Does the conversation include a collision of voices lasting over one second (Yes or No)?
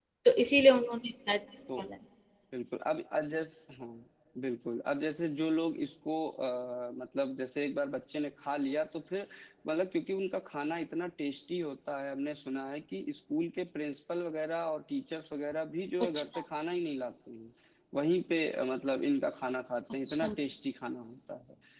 No